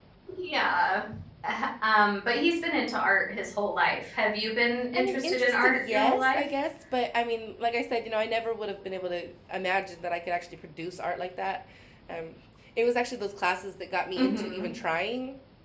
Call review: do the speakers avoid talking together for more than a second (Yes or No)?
No